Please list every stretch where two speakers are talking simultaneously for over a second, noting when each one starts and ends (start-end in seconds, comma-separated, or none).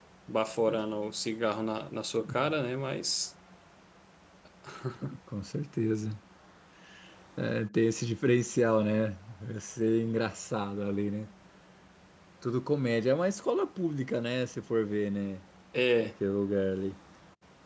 none